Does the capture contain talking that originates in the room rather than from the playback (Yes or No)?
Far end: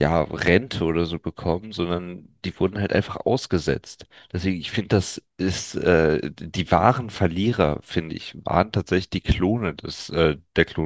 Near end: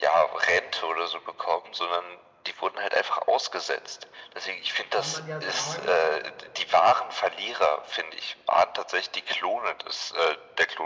Yes